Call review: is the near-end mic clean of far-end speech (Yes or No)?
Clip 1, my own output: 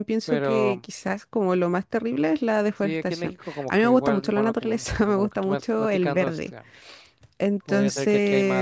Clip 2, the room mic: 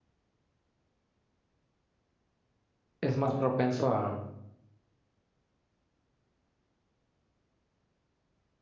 Yes